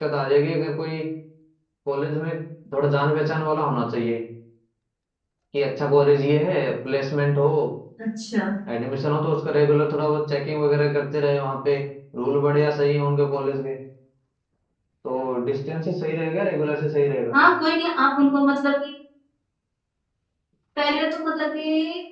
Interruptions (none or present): none